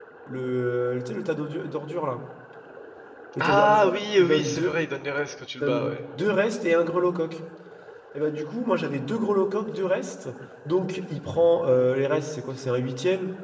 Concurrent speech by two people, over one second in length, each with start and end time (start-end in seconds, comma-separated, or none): 3.4-4.7